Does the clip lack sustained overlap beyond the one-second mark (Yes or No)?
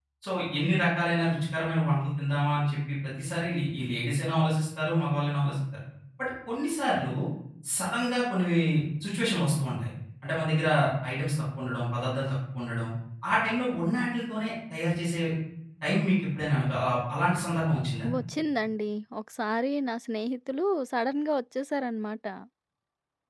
Yes